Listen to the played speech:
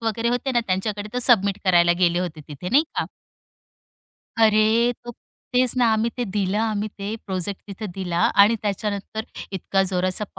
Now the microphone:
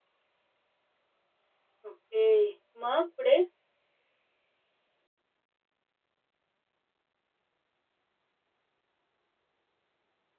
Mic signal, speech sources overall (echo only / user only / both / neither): user only